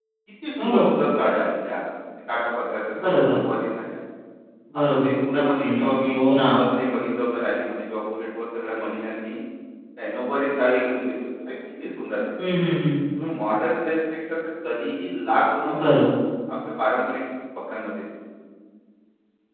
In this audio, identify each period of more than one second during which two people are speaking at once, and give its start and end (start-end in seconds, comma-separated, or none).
4.9-6.2